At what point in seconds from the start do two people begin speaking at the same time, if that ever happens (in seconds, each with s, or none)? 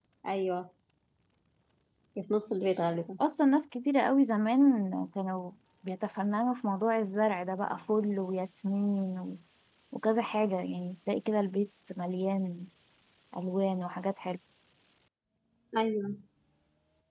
none